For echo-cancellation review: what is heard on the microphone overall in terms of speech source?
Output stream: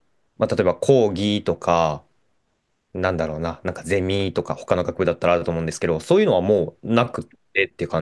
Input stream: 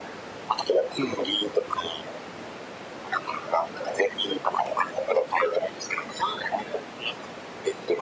echo only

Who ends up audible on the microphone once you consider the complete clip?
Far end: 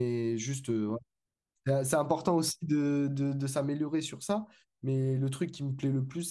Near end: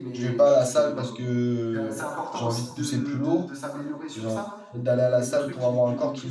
both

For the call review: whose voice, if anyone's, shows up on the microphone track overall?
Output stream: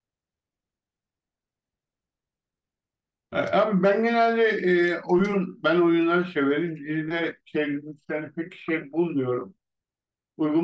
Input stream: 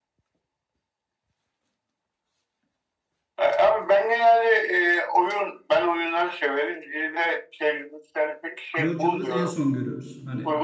both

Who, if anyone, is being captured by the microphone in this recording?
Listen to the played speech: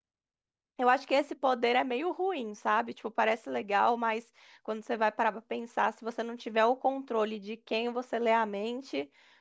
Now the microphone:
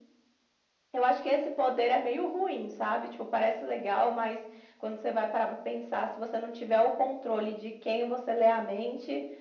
echo only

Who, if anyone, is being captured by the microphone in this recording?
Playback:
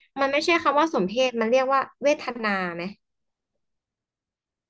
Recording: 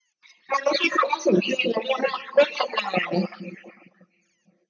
echo only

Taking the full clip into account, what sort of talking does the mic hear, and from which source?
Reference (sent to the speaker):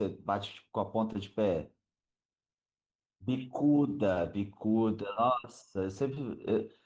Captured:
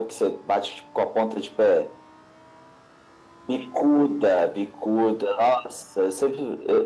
echo only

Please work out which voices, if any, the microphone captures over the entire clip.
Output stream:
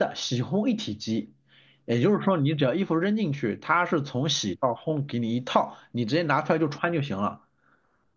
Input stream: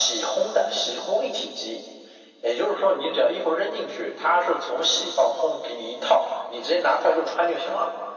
echo only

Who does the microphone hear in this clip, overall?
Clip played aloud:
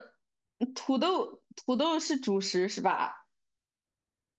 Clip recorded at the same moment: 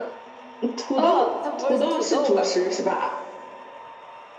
both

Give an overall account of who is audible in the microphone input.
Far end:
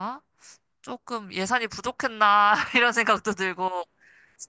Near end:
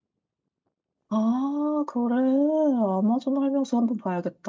user only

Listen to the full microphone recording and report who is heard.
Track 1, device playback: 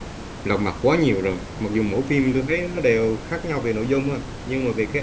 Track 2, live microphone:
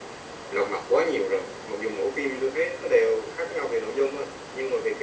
echo only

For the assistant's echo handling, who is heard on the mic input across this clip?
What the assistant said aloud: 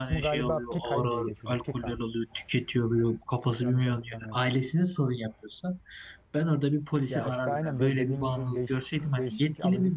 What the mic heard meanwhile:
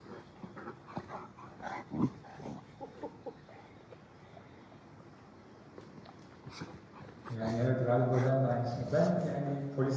user only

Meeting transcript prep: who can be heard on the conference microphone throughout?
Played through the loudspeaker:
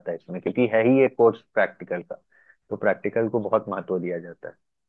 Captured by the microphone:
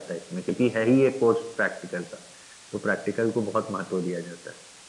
echo only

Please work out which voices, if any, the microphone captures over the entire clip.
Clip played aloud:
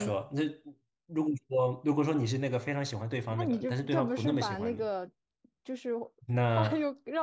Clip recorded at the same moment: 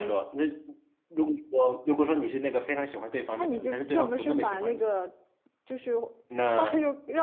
echo only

